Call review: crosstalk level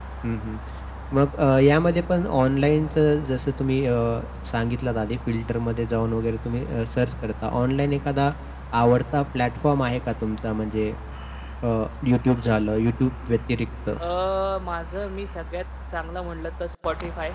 none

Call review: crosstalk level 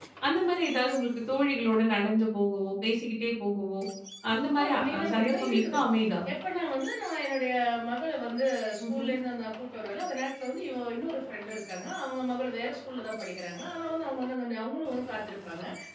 present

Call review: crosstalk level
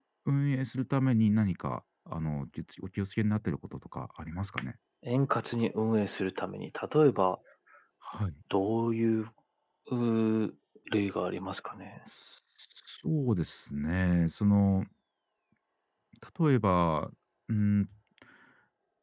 none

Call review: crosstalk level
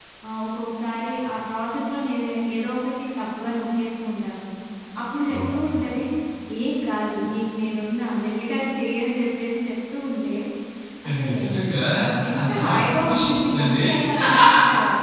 present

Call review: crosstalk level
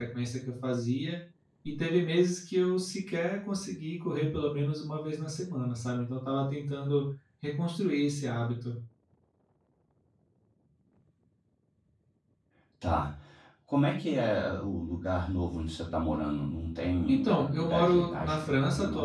present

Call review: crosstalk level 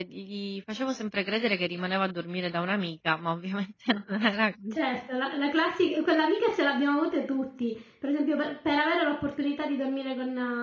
none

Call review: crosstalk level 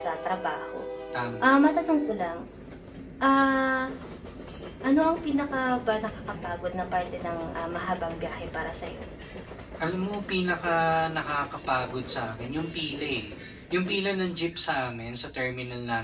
none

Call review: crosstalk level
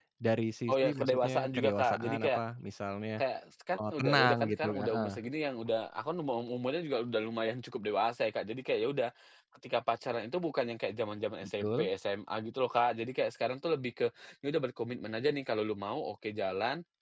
present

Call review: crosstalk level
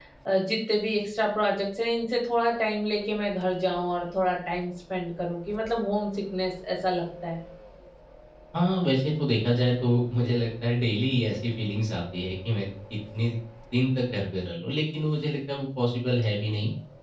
none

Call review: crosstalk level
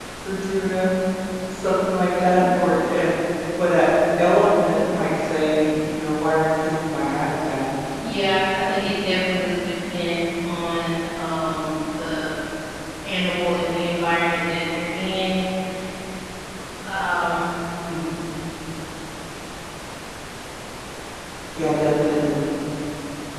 none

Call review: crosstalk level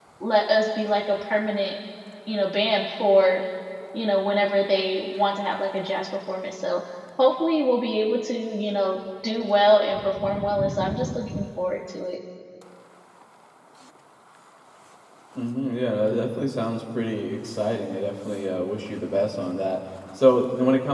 none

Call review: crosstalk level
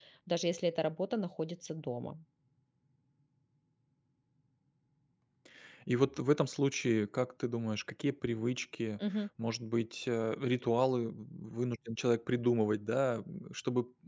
none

